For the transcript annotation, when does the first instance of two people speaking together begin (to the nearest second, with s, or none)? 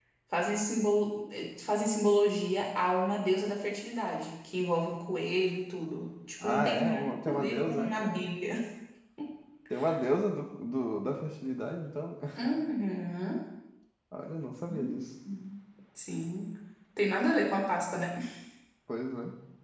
6 s